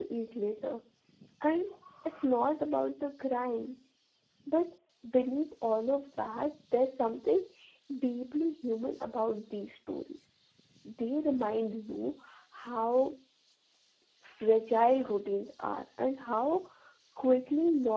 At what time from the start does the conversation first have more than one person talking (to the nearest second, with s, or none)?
none